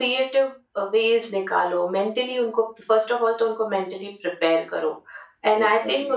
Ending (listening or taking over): listening